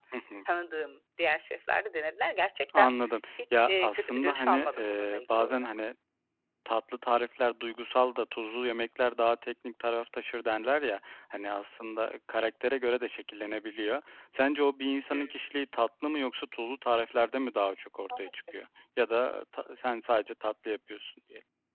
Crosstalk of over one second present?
Yes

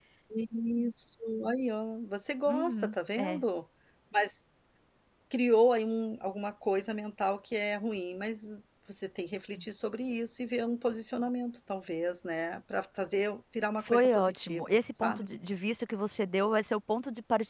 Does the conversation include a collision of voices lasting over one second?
Yes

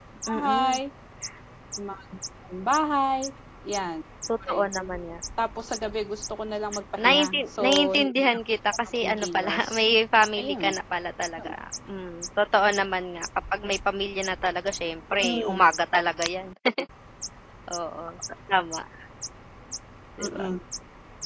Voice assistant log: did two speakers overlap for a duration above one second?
Yes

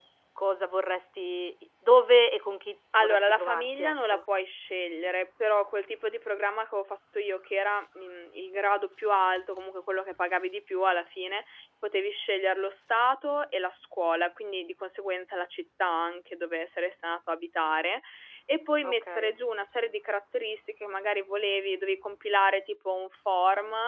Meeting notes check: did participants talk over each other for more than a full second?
Yes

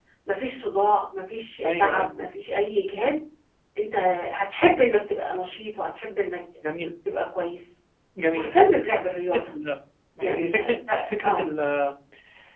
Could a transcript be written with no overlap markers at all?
No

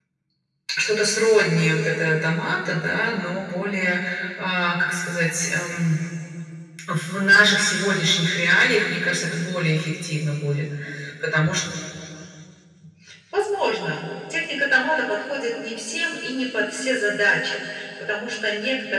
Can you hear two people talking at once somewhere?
No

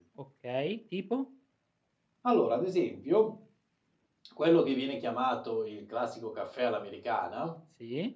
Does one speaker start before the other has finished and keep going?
No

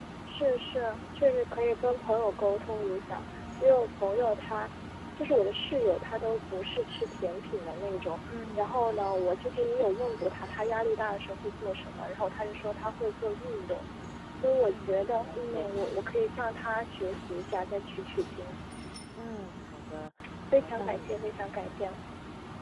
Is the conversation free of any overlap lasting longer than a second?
No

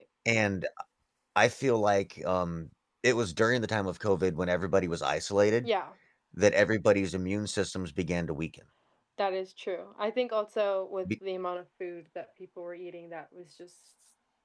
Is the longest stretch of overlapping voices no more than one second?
Yes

